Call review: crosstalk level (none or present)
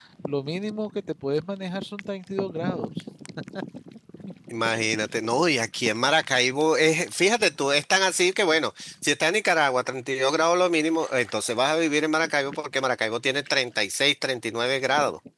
none